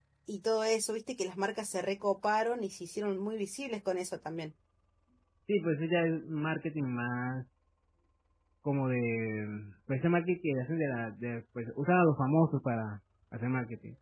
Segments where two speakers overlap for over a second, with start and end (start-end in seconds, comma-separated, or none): none